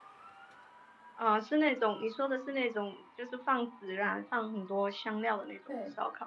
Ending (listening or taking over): taking over